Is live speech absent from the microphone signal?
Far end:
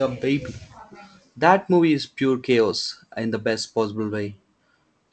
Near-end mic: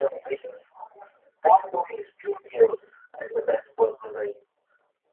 Yes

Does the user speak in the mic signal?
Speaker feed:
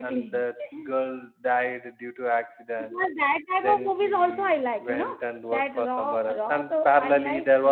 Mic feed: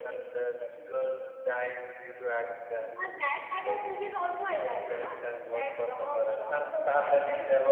No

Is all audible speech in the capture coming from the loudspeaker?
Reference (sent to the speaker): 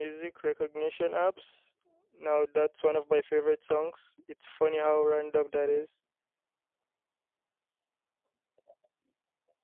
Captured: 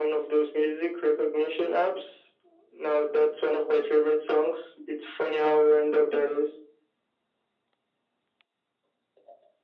Yes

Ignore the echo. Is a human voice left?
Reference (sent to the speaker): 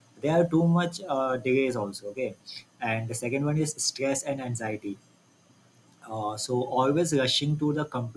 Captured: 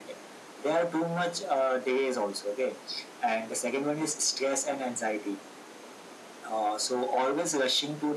No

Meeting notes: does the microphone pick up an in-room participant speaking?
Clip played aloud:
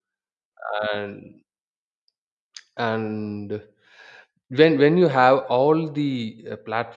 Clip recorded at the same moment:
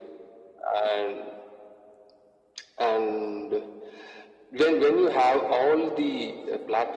No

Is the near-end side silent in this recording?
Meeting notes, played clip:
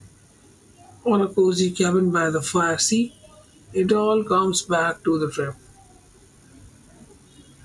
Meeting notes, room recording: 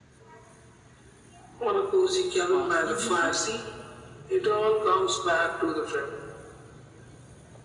No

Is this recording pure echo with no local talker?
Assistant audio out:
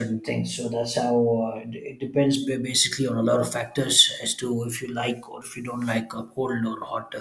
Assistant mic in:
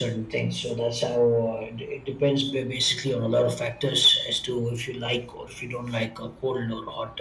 Yes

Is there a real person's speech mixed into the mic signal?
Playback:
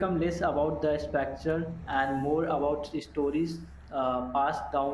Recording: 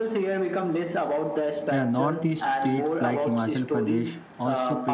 Yes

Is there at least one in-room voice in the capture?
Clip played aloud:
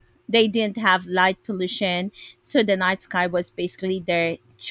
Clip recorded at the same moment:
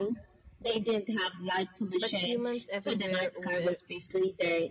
Yes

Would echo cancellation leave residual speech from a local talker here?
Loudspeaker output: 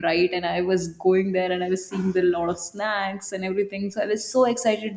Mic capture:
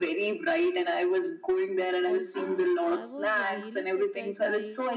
Yes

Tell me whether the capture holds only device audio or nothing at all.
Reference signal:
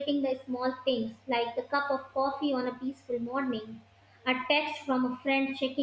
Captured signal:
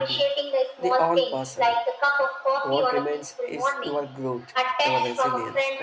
No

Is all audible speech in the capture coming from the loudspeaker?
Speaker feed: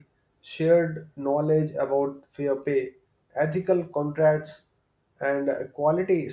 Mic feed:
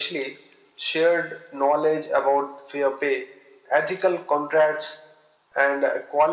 Yes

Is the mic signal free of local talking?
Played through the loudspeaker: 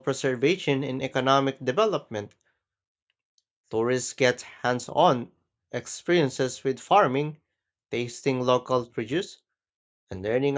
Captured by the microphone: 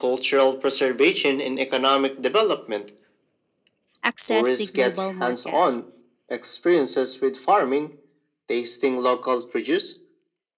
No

